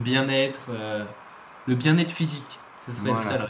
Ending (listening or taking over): taking over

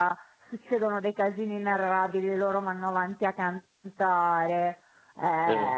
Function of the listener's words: listening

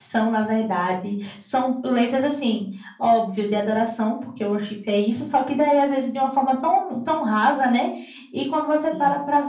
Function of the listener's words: listening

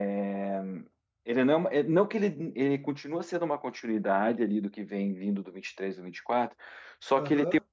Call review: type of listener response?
listening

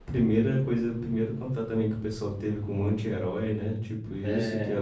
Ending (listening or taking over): listening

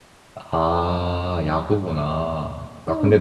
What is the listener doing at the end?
listening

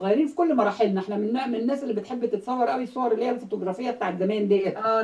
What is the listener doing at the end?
taking over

